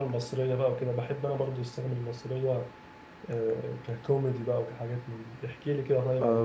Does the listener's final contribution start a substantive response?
Yes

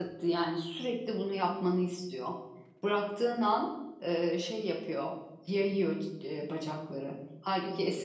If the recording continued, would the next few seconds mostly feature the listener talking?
No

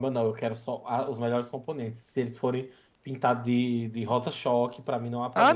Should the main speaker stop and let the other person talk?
Yes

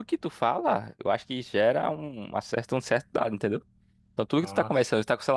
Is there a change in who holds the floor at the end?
No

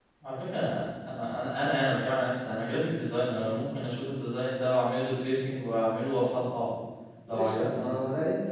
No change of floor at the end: No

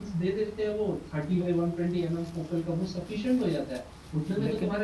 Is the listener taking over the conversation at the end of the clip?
No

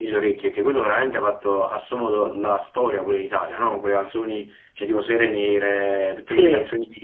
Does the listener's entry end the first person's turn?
No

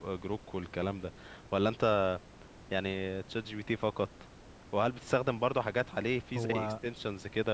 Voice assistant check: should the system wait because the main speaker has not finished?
Yes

